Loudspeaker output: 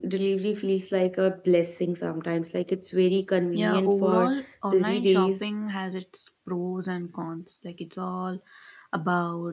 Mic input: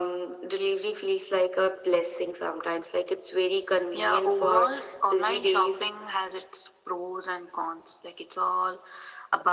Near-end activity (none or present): none